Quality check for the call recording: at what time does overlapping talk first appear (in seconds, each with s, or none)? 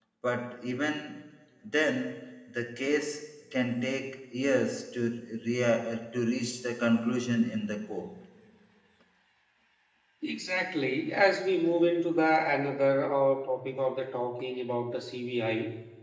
none